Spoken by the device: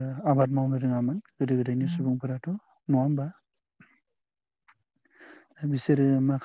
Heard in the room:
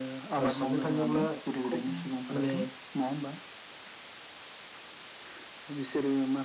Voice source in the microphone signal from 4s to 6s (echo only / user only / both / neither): echo only